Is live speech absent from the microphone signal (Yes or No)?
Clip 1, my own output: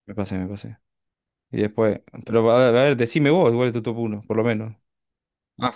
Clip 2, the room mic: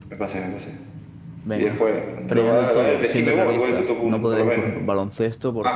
No